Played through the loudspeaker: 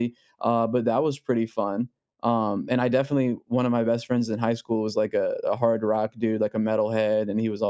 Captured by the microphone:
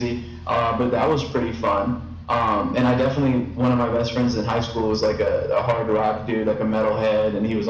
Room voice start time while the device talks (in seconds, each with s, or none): none